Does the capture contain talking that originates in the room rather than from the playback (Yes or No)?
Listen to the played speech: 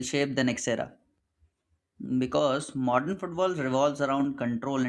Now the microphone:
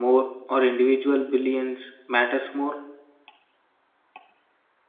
Yes